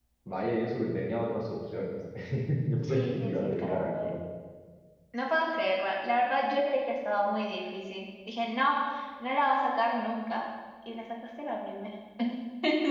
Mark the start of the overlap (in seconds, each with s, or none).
2.8 s